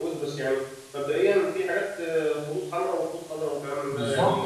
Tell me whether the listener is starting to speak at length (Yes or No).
Yes